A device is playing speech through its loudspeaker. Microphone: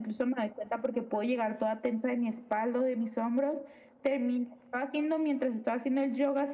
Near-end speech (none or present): none